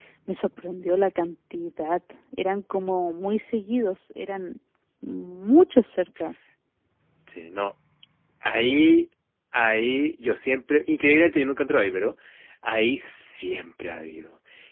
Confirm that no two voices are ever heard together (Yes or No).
Yes